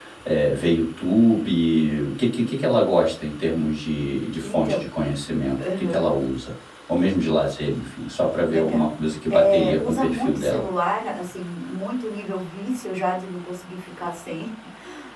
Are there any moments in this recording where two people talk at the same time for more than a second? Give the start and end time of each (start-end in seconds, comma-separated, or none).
9.3-10.7